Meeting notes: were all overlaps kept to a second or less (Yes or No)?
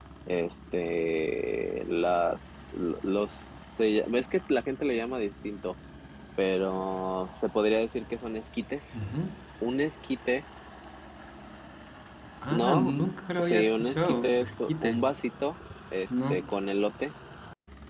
No